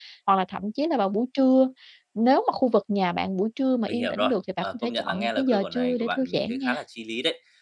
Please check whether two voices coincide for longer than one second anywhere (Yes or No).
Yes